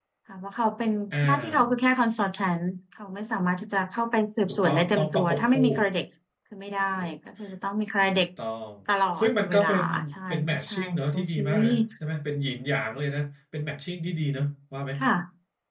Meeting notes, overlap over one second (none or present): present